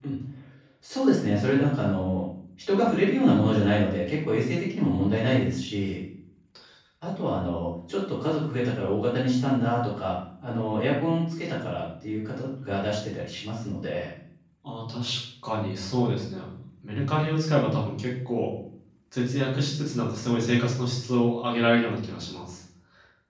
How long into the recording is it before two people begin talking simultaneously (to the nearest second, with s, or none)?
none